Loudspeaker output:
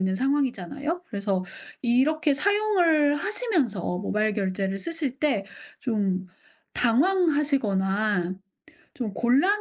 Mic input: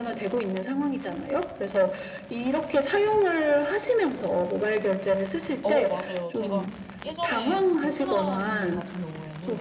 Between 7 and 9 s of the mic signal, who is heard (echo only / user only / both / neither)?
both